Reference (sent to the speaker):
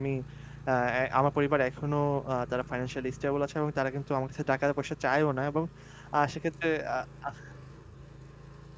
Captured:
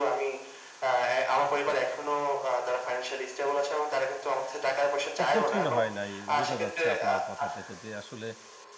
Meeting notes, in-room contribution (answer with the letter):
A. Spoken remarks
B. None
A